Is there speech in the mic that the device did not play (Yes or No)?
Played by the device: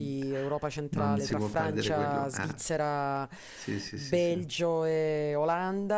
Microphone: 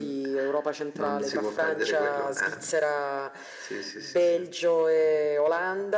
No